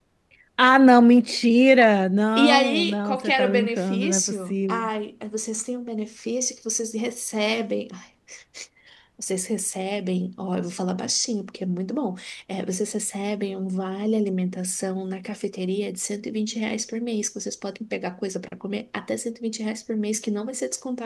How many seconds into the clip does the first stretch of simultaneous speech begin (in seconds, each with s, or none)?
2.4 s